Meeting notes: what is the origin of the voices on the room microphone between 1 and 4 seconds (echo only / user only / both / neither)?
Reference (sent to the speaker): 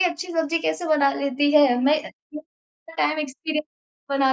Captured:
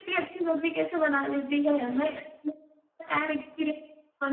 echo only